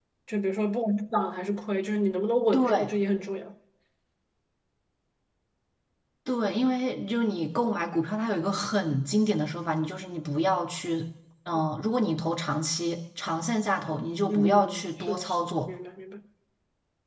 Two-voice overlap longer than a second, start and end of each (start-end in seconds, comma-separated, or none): 14.3-15.7